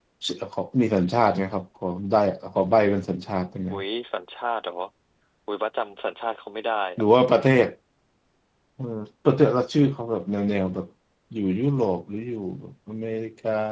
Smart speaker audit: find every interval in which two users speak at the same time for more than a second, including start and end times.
none

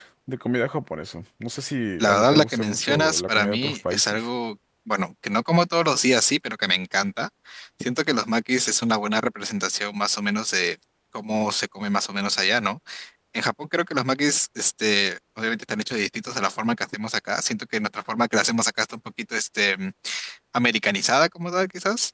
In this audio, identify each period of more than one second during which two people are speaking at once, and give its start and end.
2.0-4.3

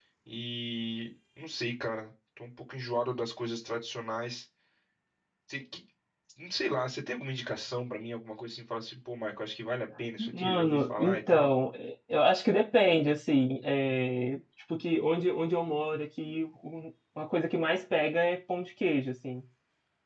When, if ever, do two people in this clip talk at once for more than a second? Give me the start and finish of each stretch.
10.2-11.5

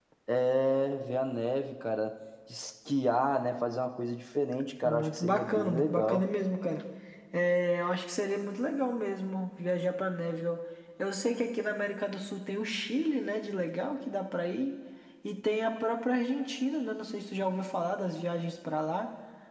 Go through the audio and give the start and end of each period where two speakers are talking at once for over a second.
4.8-6.3

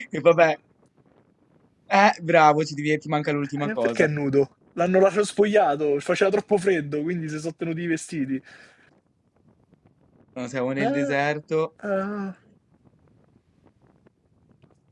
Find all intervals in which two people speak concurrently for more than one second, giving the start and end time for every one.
none

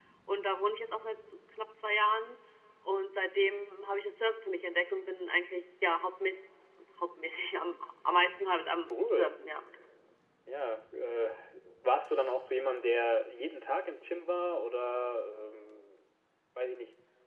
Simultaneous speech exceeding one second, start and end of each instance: none

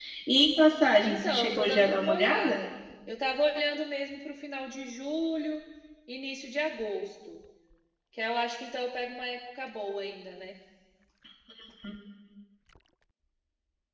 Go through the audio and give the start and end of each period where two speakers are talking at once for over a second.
1.0-2.6

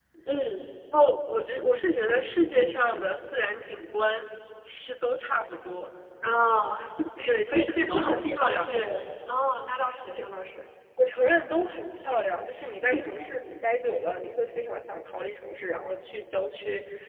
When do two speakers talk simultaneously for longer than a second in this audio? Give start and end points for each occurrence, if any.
7.5-8.7

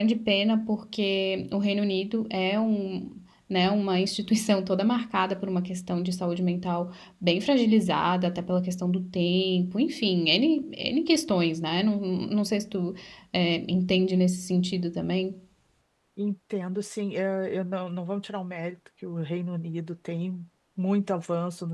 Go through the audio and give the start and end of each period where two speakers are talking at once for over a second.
none

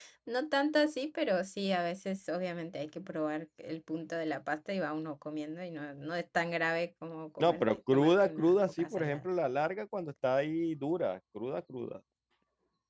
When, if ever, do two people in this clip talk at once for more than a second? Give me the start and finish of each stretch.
7.4-9.2

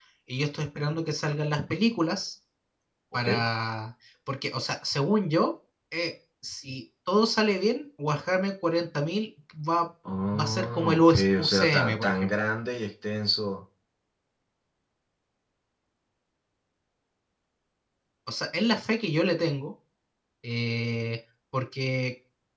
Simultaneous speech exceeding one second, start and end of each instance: 10.4-12.3

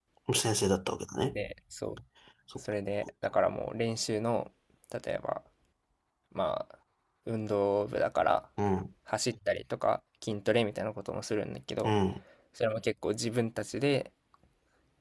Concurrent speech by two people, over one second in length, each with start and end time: none

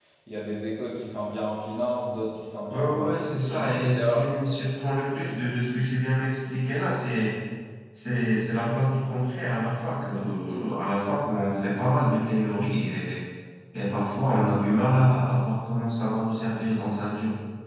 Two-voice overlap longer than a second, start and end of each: 2.7-4.2

